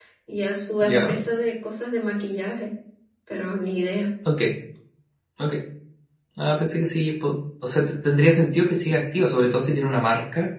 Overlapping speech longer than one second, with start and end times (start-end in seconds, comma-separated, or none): none